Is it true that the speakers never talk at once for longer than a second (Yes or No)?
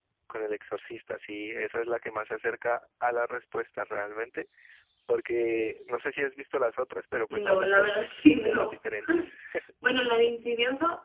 No